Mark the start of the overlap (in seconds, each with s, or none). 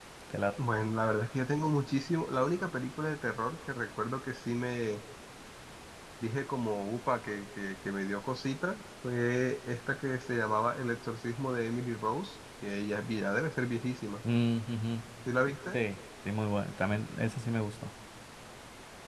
none